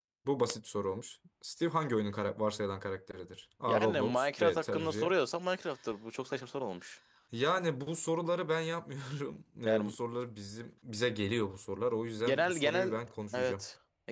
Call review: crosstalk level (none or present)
present